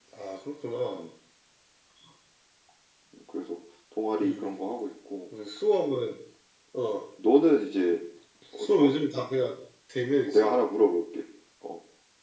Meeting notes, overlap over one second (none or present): none